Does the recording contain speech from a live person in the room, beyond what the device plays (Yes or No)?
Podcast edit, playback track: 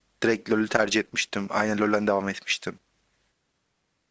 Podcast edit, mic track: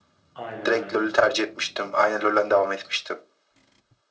Yes